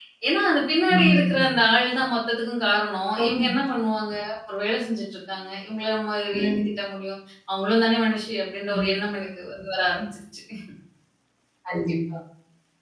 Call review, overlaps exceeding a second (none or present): none